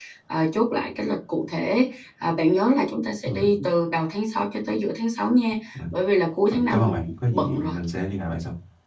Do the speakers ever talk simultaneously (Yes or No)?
Yes